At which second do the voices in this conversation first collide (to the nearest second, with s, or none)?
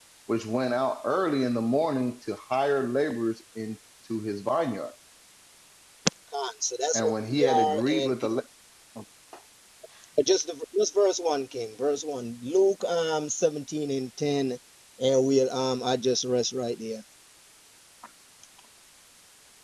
7 s